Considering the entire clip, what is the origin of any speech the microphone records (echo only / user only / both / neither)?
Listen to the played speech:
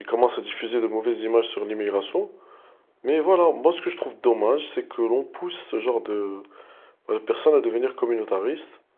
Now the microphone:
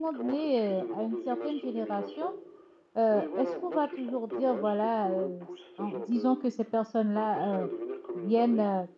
both